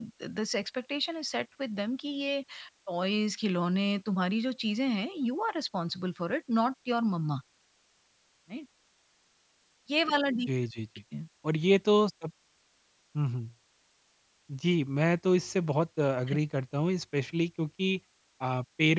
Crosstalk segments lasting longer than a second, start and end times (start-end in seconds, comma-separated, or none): none